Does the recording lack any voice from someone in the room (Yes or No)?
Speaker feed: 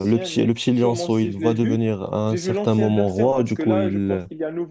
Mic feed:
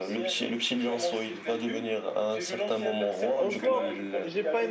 No